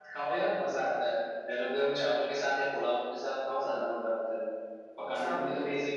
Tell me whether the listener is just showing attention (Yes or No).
Yes